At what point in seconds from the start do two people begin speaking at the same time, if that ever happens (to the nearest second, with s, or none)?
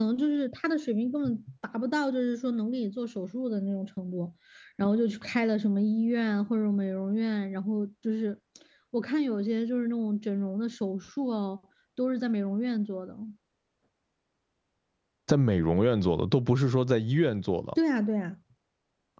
none